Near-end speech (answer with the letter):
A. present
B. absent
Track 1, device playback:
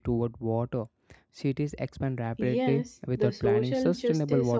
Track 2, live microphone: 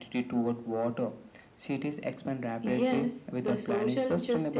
B